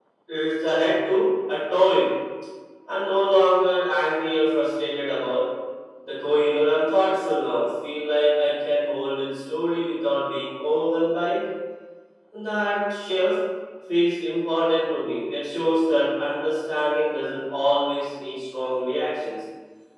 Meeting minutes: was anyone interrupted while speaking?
No

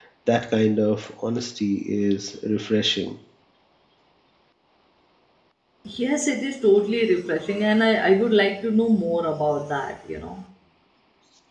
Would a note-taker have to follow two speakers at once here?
No

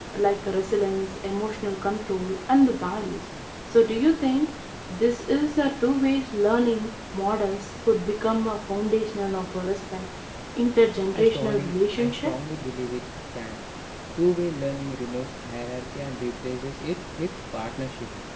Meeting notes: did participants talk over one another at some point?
Yes, from 11.1 s

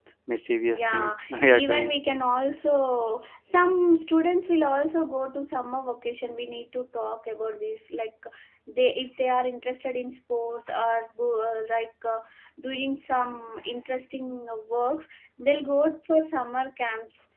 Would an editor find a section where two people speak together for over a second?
Yes, from 0.7 s

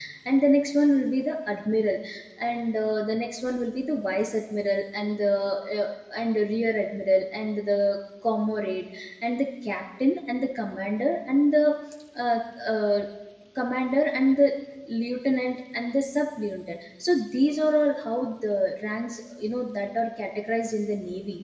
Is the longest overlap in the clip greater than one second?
No

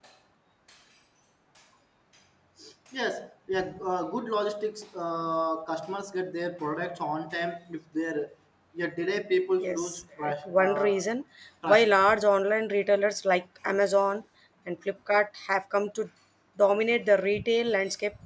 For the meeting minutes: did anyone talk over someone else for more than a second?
Yes, from 9.6 s

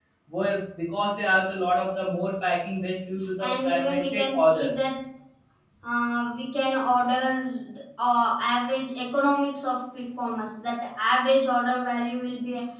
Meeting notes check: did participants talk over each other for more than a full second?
Yes, from 3.4 s

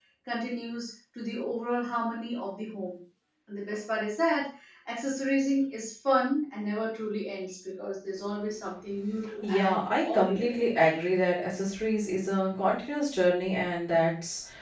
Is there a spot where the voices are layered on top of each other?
Yes, from 9.4 s

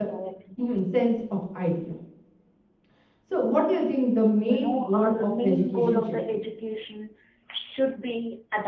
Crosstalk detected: Yes, from 4.5 s

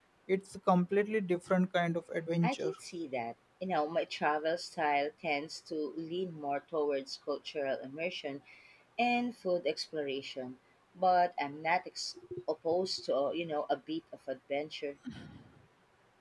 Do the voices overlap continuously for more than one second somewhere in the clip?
No

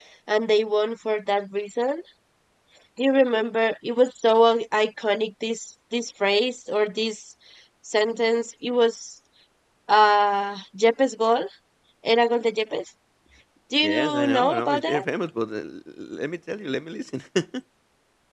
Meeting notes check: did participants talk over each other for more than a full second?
Yes, from 13.8 s

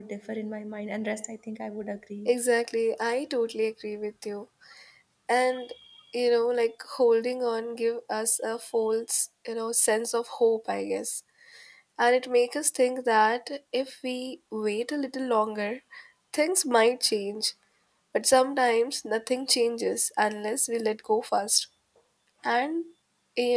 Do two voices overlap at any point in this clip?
No

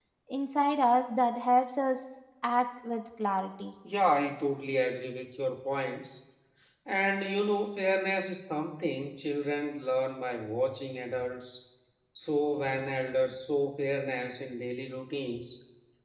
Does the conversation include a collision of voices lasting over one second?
No

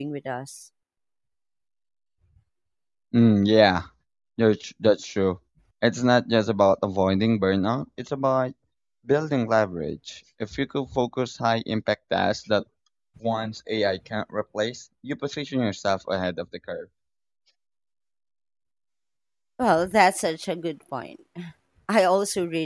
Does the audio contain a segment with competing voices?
No

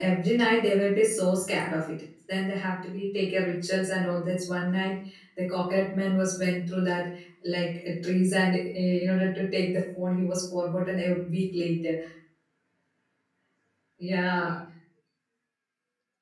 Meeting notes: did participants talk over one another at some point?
No

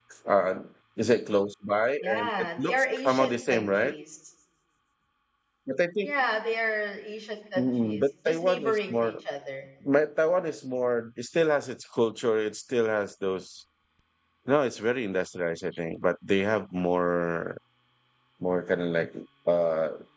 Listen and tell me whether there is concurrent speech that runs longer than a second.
Yes, from 2.0 s

